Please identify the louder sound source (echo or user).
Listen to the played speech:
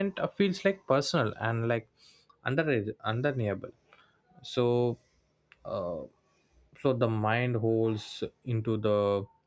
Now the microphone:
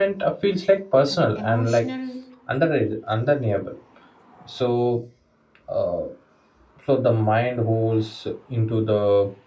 echo